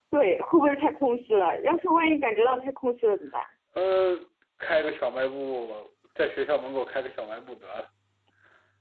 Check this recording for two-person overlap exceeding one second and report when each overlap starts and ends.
none

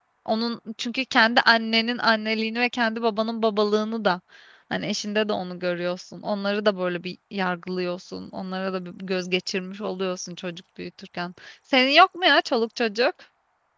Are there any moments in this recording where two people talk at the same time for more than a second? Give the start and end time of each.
none

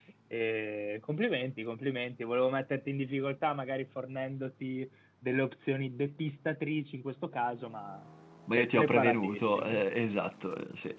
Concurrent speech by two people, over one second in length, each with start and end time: 8.6-9.8

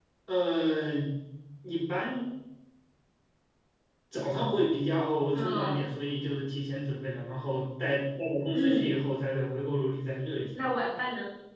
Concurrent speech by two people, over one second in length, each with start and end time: none

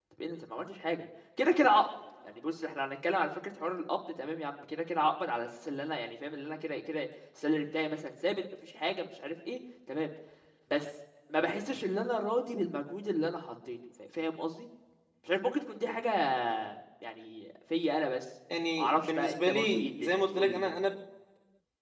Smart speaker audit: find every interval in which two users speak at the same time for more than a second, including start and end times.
18.8-20.8

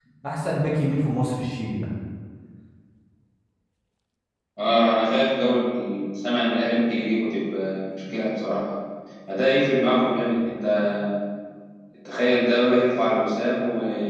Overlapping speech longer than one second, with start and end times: none

